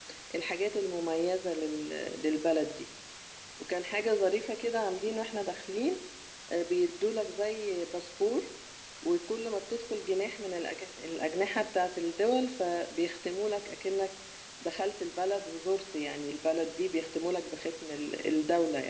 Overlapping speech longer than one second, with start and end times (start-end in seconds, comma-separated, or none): none